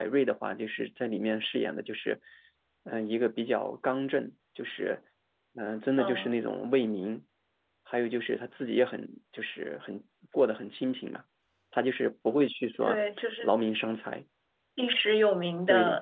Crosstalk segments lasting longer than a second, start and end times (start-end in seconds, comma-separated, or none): none